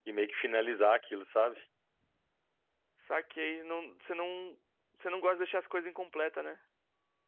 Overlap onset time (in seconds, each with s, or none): none